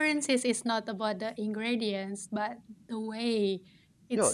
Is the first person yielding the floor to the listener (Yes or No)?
Yes